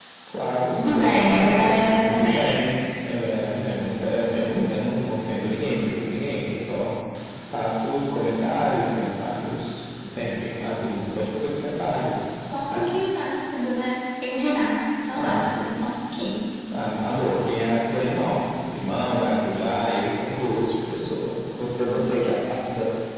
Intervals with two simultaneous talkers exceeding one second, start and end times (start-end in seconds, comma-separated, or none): 0.8-2.6